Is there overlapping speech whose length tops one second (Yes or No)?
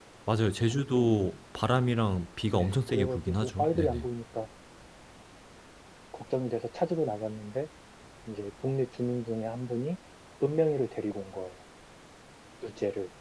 Yes